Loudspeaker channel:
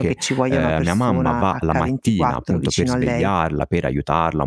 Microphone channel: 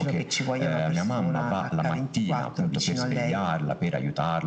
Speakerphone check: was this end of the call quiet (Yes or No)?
Yes